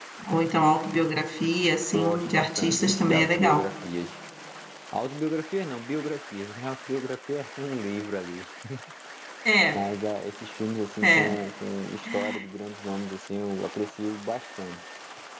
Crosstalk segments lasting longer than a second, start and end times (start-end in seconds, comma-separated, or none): 1.9-3.7